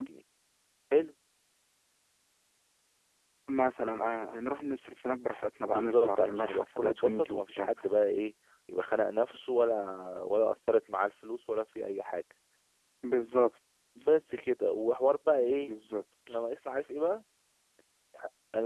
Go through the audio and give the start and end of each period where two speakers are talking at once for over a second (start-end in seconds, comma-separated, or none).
5.7-7.7